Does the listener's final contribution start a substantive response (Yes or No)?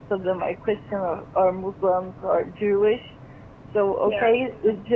No